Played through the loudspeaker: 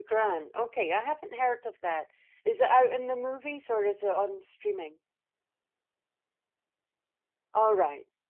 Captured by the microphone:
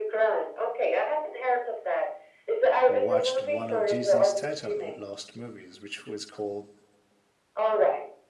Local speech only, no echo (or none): watched one of Jason Statham's last movies, which was called